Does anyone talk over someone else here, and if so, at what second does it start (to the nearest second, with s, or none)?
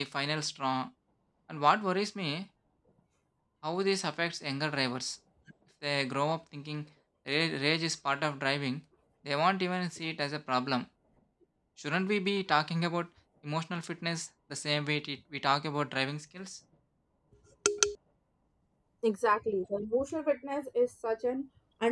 none